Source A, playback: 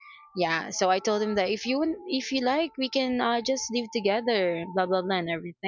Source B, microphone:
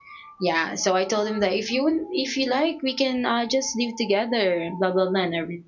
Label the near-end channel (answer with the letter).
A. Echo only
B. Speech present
A